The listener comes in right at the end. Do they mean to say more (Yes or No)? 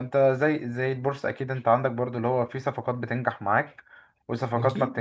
No